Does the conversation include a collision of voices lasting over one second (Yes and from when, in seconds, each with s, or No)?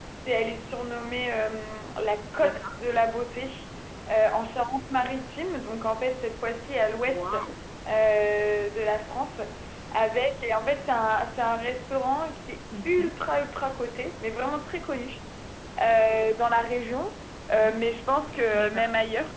No